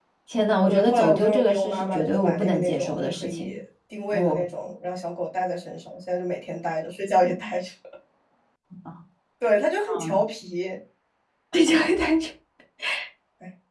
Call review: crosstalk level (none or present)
present